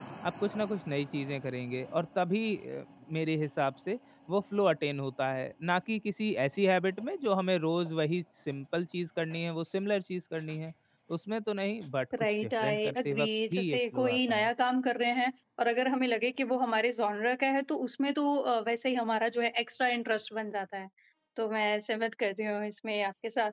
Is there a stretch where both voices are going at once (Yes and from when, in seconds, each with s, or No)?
Yes, from 12.1 s